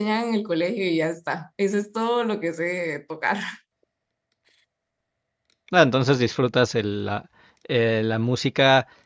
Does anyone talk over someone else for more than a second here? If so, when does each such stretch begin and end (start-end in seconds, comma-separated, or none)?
none